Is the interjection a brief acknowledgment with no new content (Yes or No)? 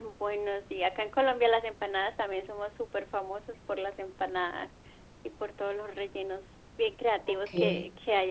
Yes